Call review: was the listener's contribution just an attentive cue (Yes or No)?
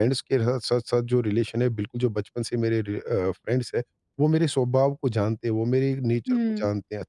Yes